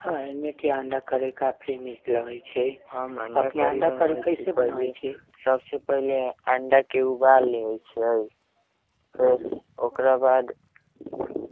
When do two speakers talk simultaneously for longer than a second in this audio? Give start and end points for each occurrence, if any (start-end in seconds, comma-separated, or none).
3.4-4.9